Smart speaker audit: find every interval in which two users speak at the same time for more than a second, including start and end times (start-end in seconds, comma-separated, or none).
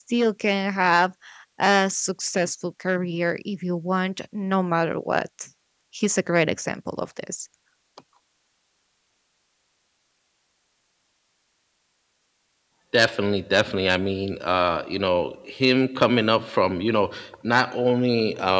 none